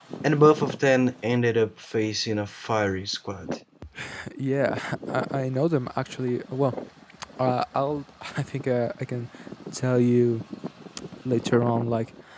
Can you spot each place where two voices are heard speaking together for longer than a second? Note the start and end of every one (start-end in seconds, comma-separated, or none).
none